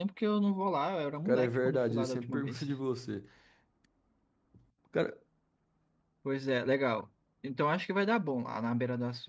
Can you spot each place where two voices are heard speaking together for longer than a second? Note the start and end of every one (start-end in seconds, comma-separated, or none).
1.2-2.6